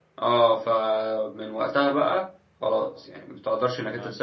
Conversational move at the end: listening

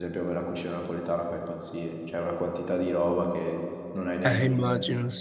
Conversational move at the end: taking over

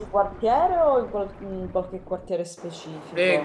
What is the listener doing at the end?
taking over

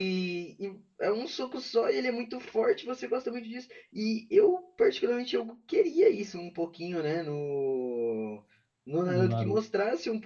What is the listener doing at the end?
listening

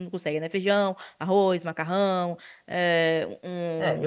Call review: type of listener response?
taking over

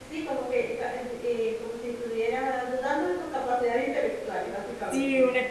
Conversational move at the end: taking over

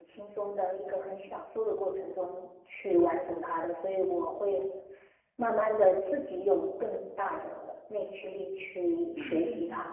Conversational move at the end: taking over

